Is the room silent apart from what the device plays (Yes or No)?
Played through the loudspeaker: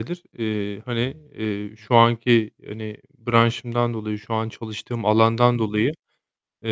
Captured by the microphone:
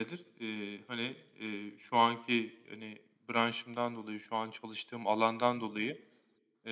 Yes